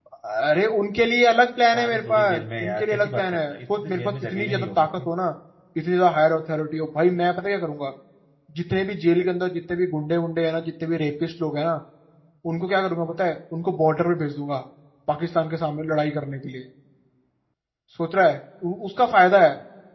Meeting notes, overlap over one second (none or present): present